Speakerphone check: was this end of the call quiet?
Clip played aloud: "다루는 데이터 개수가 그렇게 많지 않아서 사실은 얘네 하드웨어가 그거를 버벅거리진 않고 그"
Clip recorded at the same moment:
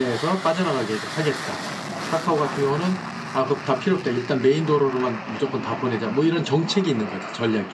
No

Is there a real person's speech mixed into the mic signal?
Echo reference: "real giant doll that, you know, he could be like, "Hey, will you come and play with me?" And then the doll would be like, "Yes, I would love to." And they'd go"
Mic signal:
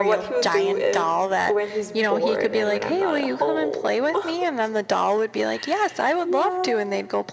Yes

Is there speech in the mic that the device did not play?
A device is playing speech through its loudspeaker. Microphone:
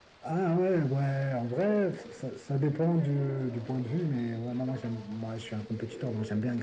Yes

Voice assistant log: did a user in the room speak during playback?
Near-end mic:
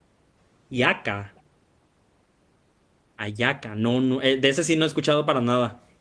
Yes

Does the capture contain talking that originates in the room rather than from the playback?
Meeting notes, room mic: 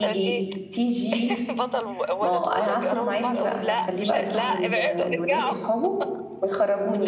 Yes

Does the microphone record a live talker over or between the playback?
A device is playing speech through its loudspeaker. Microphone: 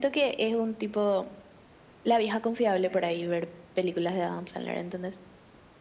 Yes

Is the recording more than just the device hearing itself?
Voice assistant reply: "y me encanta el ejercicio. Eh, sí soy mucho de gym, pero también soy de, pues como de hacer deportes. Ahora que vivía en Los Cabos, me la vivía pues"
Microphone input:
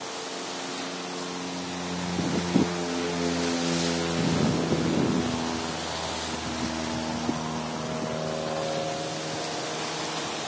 No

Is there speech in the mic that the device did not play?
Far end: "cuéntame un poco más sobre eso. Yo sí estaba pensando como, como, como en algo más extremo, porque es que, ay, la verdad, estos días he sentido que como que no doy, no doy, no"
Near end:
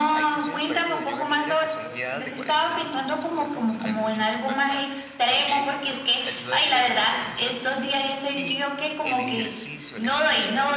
Yes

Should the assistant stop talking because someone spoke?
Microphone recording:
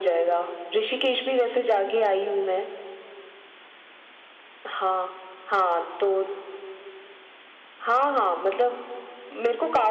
No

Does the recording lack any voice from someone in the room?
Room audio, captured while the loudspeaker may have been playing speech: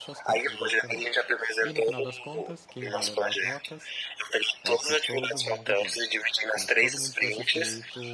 No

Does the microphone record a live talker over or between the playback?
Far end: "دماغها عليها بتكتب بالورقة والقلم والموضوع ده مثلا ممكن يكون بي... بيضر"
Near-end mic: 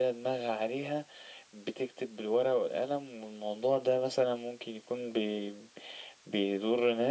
No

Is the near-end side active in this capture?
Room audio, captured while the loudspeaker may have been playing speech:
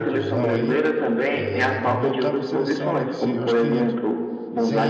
Yes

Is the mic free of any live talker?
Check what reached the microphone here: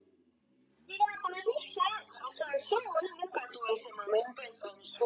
Yes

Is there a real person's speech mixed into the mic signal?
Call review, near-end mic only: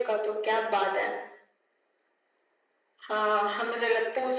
No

